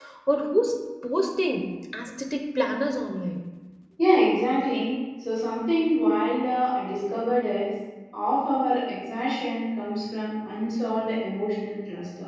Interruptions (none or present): none